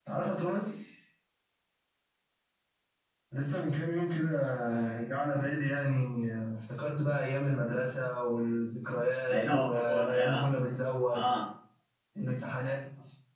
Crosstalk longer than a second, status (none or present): present